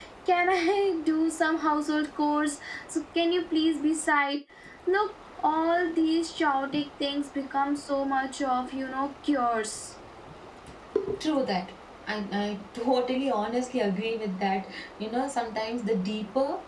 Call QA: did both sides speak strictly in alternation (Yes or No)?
Yes